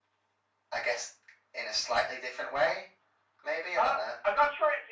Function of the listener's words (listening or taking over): taking over